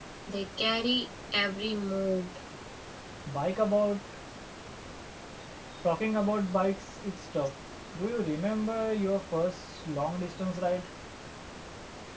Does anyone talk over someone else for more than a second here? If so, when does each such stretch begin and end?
none

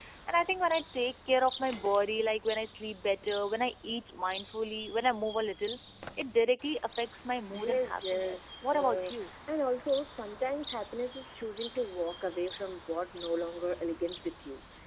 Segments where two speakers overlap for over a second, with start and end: 7.5-9.1

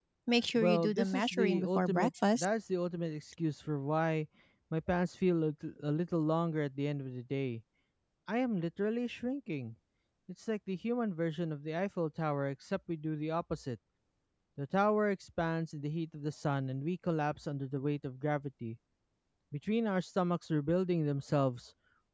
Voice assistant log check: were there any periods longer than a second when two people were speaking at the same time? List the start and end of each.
0.6-2.5

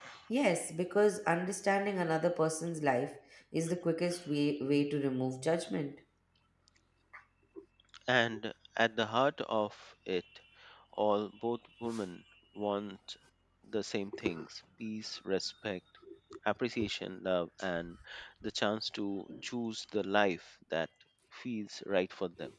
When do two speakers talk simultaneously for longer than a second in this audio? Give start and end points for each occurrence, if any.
none

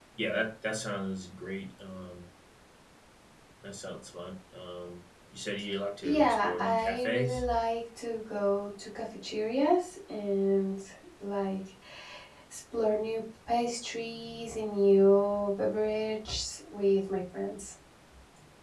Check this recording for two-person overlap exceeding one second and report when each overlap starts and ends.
6.0-7.4

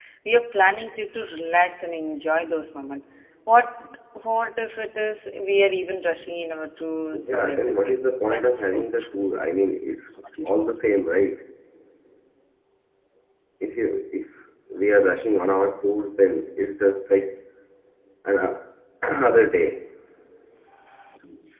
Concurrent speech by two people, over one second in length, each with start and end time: 7.3-9.3

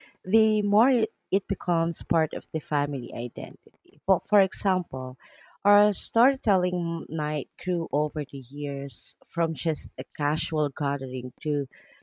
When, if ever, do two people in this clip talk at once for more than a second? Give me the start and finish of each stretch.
none

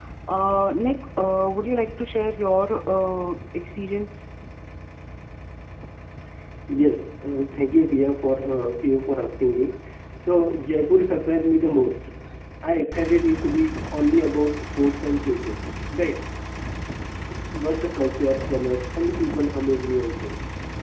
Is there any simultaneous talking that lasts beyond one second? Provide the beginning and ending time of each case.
none

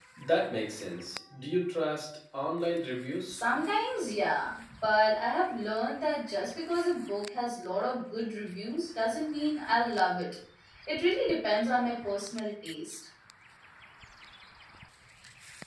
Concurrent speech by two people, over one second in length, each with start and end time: none

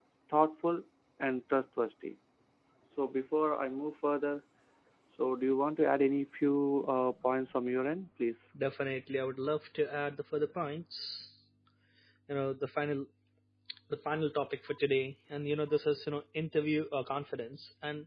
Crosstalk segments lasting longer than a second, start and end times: none

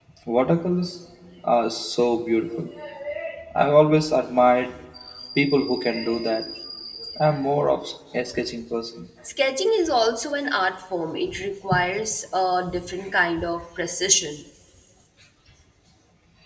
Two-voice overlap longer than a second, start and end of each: none

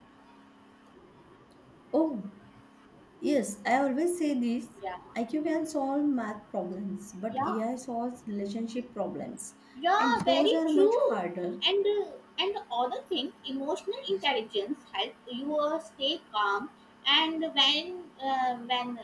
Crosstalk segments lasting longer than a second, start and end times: 10.0-11.2

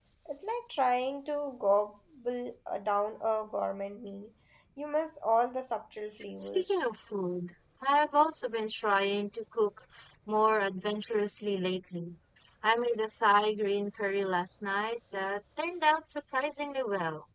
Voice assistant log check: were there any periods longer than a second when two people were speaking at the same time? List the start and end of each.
none

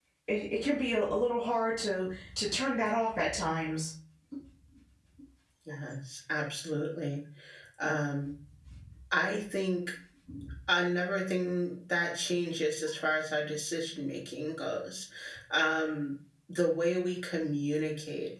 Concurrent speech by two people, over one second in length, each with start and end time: none

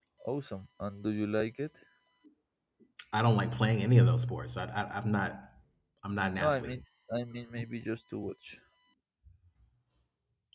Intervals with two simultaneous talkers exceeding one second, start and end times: none

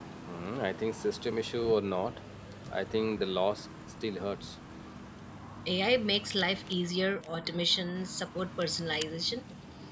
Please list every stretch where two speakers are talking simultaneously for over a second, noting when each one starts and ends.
none

